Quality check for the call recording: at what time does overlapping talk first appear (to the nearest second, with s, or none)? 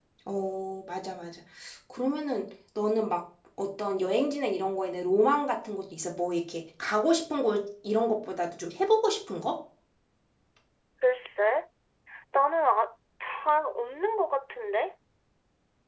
none